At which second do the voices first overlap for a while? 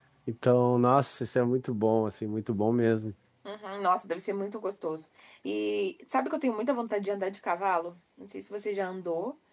none

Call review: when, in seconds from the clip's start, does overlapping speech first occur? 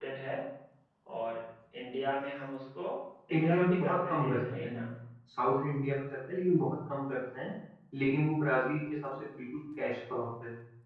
3.3 s

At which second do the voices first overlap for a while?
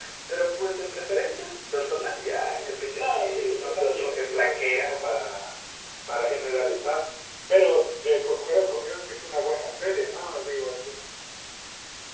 2.9 s

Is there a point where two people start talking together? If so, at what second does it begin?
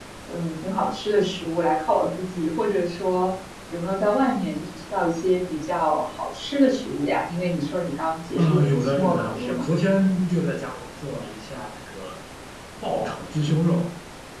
8.3 s

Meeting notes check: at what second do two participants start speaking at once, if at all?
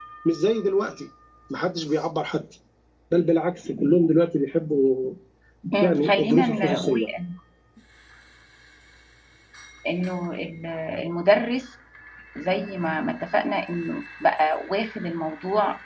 5.8 s

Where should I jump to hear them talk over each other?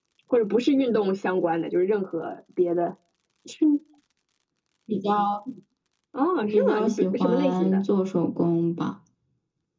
6.4 s

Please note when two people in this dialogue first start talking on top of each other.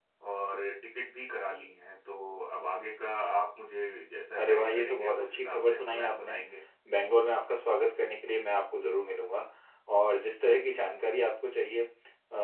4.4 s

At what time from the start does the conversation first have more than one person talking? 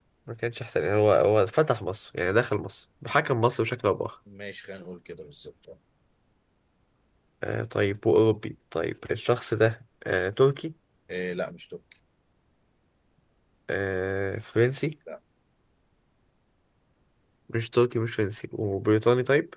none

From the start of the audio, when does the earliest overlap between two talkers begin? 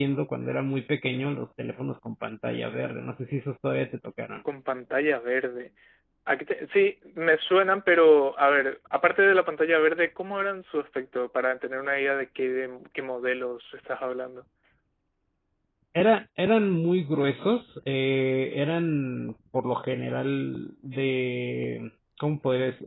none

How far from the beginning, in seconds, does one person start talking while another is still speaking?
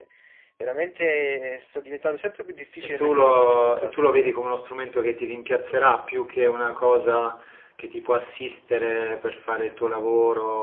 2.6 s

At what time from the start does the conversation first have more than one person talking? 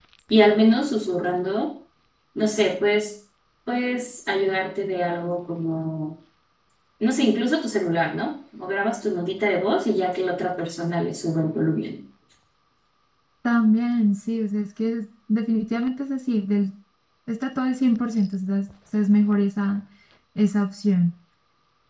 none

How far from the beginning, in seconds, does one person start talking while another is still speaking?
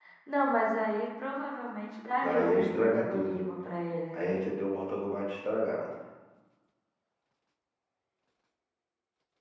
2.2 s

